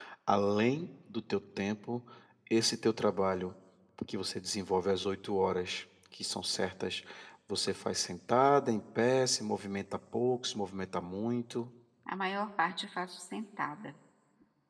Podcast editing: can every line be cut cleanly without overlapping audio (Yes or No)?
Yes